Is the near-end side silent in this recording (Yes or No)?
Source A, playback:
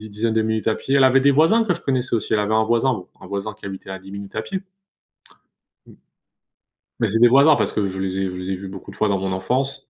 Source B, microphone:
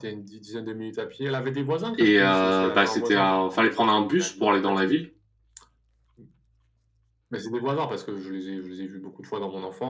No